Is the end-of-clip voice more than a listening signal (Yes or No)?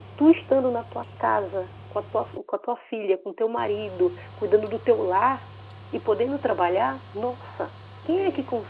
No